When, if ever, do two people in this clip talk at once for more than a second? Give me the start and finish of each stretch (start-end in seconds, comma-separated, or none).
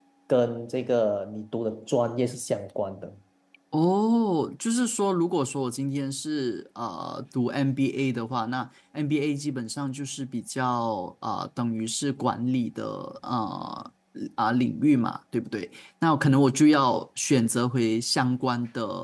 none